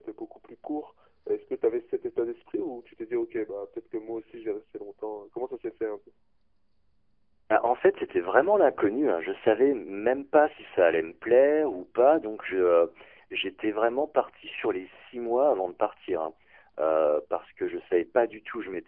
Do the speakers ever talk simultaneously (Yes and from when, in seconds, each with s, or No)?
No